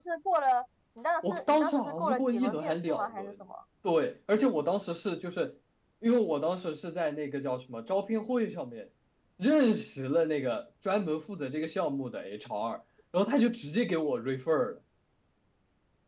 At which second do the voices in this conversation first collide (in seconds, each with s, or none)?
1.2 s